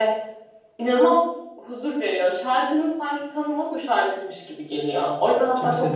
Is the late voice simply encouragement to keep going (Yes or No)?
Yes